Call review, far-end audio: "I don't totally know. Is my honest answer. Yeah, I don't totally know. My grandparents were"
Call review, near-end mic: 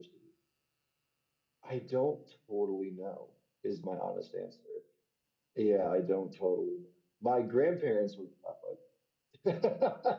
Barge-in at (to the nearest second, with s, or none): none